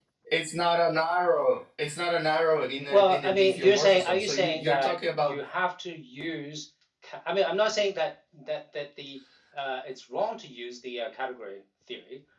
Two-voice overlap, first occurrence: 2.8 s

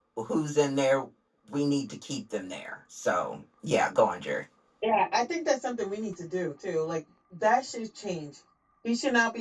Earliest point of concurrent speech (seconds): none

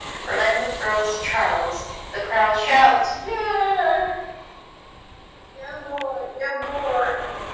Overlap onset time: none

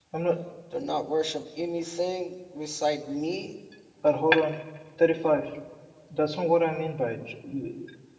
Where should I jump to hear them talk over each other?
none

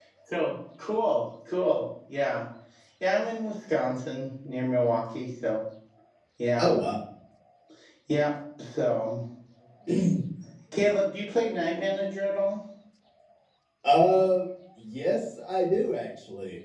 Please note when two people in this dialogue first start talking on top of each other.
none

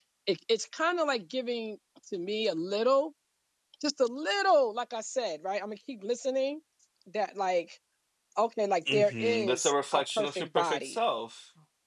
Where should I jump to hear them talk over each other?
8.9 s

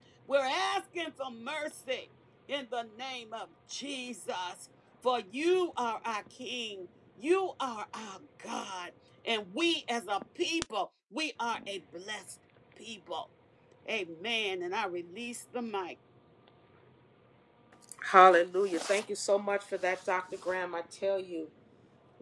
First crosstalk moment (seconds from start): none

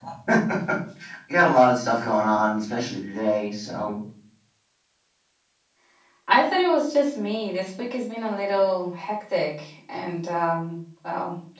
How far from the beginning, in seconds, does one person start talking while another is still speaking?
none

